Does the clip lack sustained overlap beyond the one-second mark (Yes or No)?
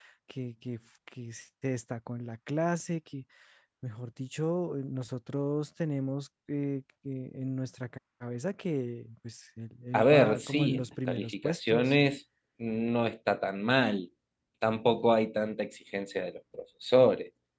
No